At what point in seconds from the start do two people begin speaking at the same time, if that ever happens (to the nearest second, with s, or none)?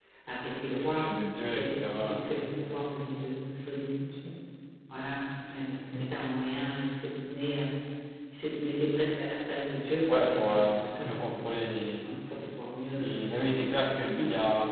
1 s